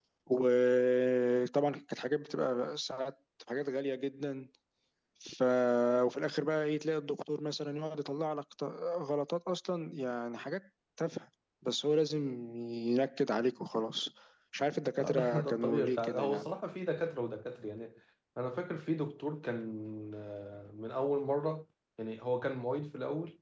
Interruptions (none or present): present